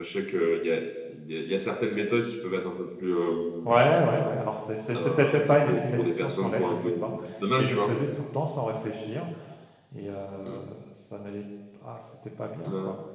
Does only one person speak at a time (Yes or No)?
No